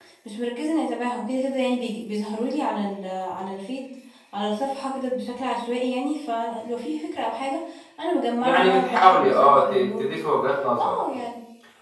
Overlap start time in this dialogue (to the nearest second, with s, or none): 8 s